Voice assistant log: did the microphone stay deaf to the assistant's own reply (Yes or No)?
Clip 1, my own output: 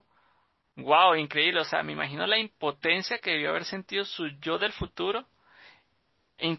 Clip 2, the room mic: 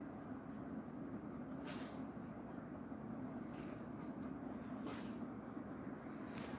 Yes